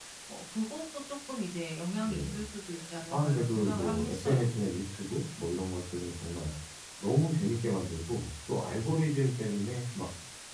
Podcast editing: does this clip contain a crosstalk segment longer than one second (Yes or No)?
Yes